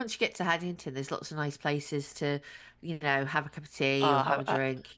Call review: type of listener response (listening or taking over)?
taking over